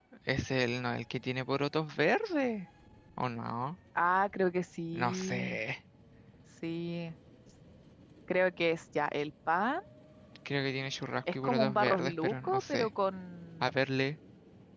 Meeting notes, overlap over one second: present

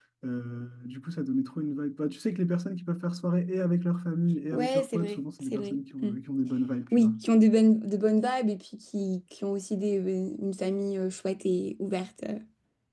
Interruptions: present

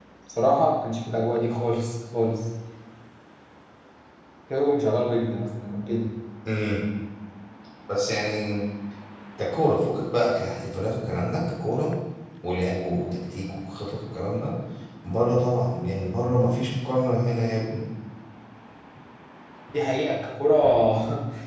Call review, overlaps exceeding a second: none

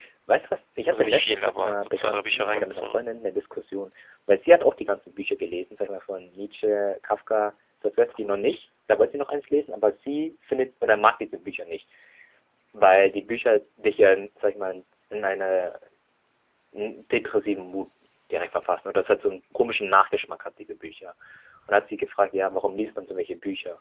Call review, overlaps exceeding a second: present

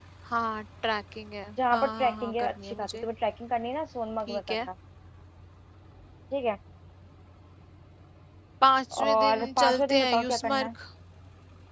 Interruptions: present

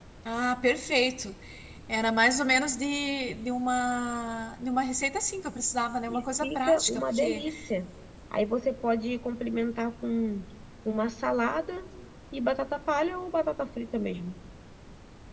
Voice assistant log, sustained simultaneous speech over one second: present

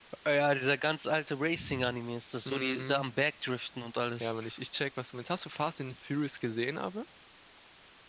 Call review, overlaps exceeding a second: none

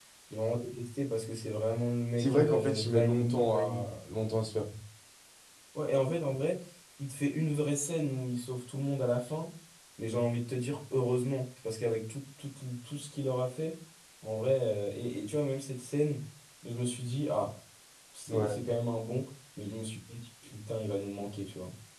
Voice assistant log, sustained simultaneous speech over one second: present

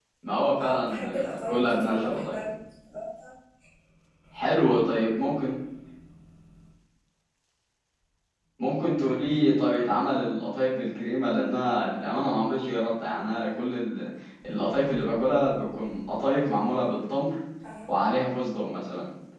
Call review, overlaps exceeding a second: present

